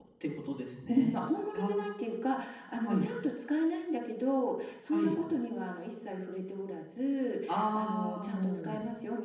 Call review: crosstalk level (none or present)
present